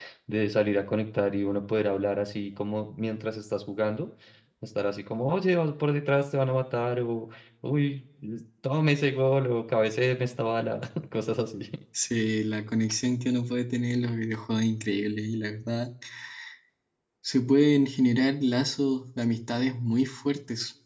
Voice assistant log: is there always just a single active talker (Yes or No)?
Yes